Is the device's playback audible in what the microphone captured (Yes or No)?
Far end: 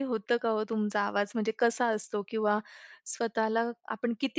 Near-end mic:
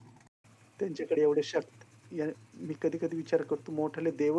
No